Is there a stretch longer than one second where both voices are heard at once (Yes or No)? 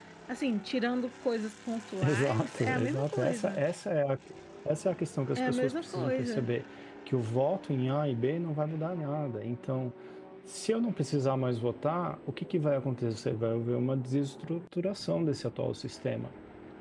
Yes